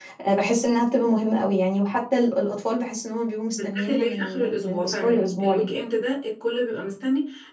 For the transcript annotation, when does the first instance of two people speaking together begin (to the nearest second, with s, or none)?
4 s